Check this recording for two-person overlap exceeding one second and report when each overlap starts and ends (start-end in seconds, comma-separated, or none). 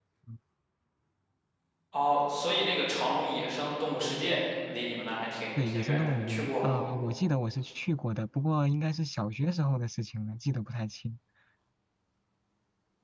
5.6-6.8